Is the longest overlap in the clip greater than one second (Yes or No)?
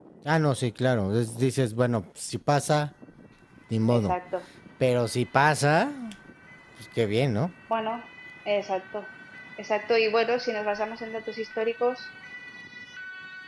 No